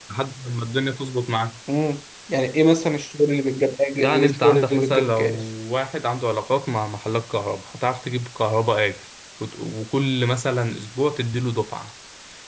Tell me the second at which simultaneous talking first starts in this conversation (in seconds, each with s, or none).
4.0 s